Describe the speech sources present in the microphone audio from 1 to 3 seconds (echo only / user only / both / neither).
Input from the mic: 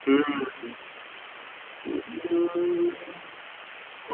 echo only